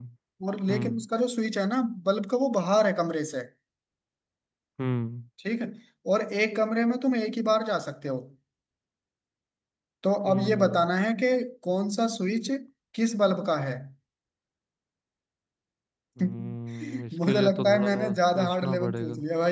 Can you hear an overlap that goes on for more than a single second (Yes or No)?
Yes